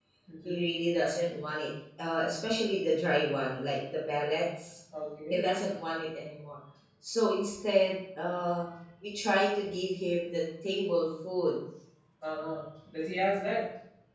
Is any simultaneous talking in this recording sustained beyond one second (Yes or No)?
No